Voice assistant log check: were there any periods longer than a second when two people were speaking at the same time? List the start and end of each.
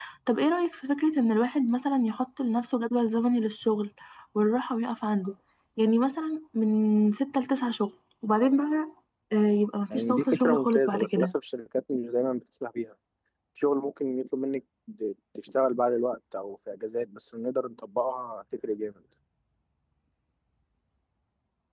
9.9-11.3

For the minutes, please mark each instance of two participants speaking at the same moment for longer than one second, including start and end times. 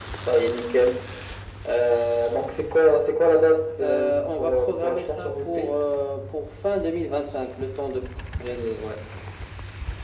3.8-5.8

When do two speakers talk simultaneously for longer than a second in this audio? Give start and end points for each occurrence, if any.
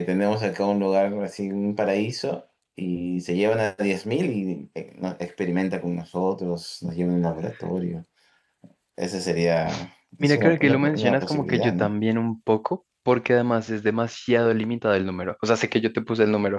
10.2-11.9

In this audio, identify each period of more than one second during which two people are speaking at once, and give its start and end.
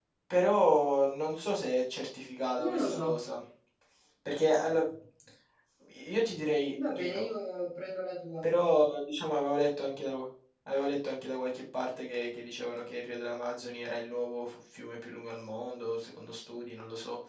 none

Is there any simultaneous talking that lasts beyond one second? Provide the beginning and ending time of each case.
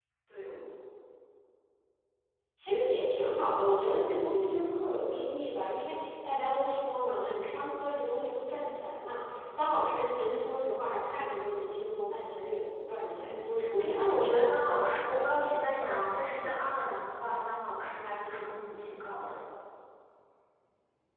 13.1-14.5

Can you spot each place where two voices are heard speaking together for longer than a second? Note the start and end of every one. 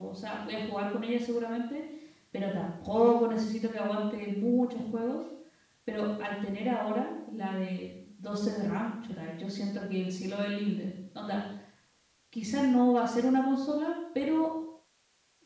none

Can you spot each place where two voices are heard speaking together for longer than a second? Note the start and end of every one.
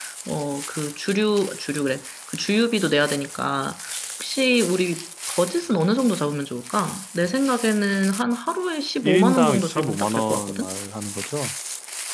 9.0-10.7

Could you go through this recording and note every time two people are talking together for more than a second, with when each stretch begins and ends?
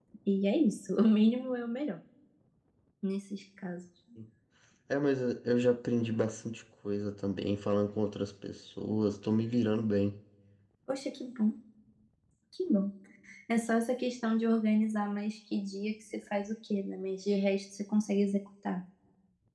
none

